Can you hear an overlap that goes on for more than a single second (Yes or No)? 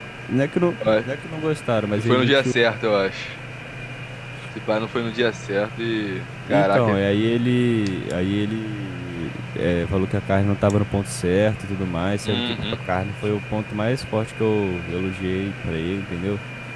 No